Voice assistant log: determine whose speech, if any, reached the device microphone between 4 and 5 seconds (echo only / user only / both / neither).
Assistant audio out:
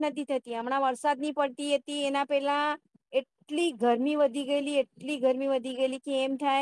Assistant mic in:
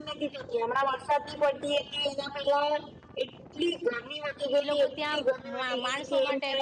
both